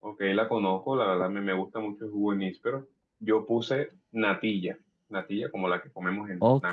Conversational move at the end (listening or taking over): taking over